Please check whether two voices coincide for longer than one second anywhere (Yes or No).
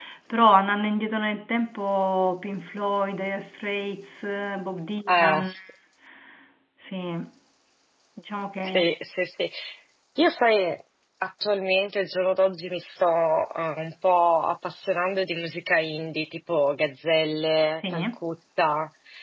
No